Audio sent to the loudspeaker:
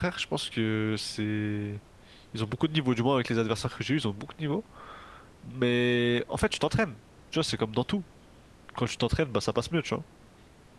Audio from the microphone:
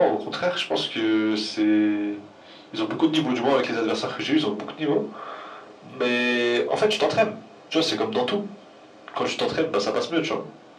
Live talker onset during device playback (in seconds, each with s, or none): none